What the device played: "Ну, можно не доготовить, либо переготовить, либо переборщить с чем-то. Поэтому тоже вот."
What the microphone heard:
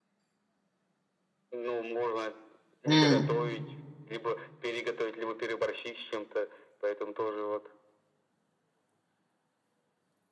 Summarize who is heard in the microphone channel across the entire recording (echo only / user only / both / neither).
both